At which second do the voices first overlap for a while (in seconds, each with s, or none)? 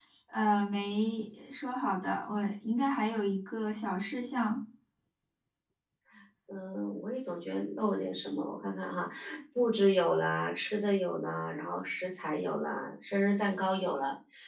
none